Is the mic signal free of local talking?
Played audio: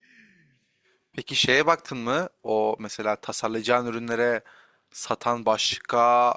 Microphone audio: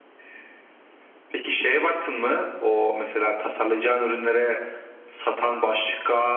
Yes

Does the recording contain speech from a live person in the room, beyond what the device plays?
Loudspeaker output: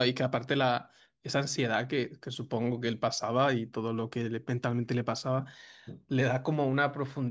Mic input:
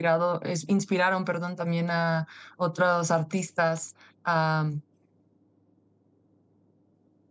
Yes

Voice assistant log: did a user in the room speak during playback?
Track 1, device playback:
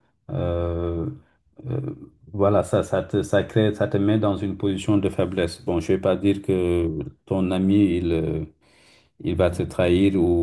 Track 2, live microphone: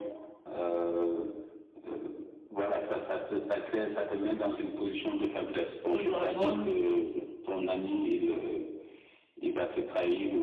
Yes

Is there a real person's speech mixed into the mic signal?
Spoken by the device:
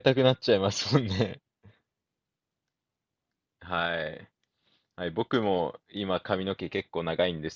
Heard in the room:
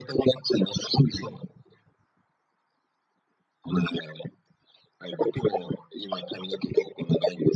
No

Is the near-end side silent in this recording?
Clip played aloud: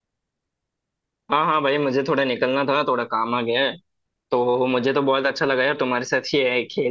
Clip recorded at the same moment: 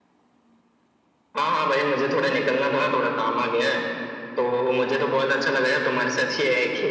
Yes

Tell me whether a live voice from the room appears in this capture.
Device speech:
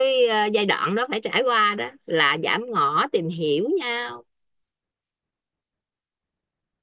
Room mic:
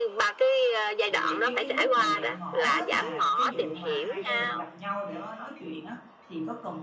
Yes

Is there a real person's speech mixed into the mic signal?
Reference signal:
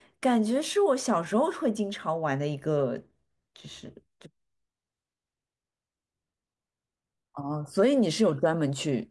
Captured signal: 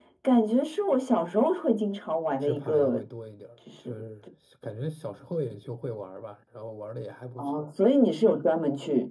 Yes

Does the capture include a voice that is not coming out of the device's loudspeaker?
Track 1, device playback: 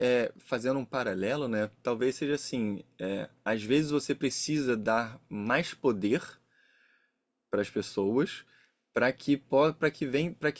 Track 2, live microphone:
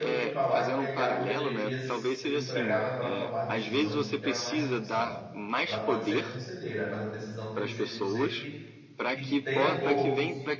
Yes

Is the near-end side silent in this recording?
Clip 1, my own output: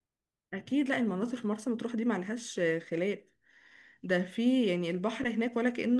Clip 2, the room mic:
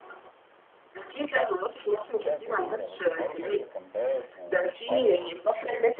No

